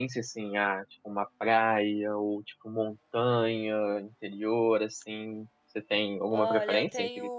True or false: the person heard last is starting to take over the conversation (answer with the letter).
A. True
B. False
A